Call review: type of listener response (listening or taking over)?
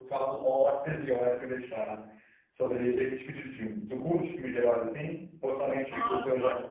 taking over